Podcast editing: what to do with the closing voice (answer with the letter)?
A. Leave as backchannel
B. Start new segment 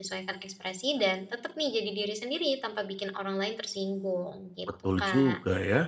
B